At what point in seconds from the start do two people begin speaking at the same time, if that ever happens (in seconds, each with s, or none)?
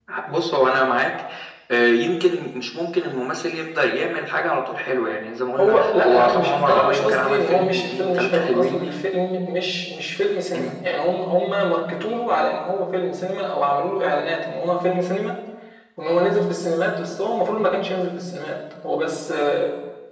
5.6 s